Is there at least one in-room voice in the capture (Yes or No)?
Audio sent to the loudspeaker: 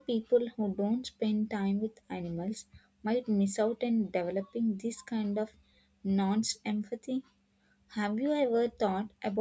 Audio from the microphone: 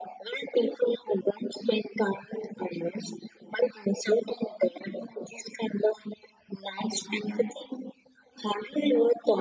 No